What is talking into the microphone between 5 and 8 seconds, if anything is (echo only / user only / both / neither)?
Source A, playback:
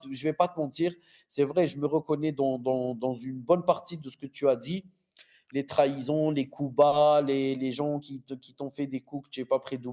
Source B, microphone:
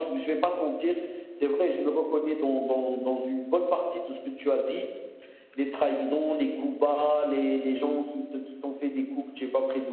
echo only